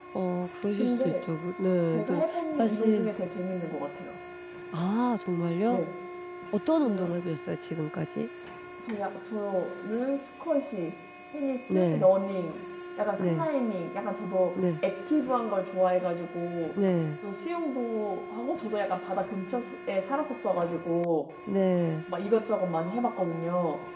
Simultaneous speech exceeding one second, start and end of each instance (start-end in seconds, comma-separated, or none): 1.9-3.1